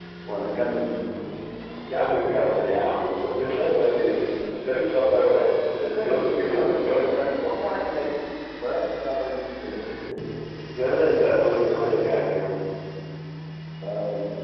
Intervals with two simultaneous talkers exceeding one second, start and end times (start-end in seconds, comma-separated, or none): 5.7-7.3